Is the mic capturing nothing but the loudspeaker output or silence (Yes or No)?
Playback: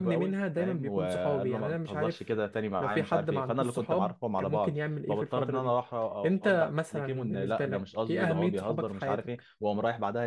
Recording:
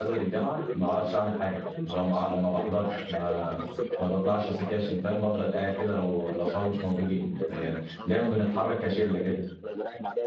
No